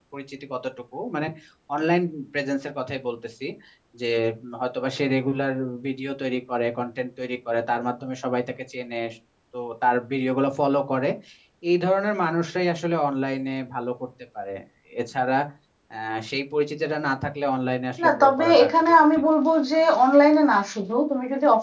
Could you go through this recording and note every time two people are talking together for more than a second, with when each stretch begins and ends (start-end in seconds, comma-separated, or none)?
18.0-19.3